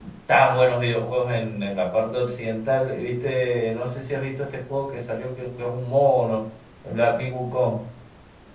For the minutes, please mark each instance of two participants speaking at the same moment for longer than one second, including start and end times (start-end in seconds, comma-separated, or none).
none